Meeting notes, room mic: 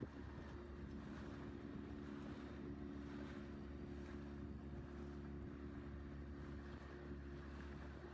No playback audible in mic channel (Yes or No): Yes